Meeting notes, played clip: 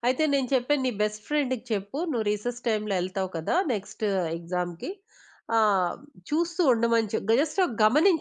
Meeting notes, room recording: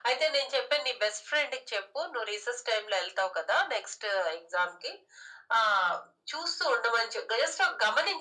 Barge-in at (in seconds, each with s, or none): none